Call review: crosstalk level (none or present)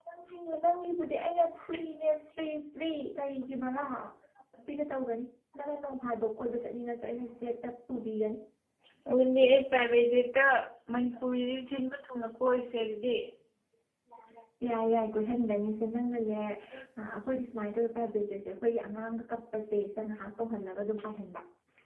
none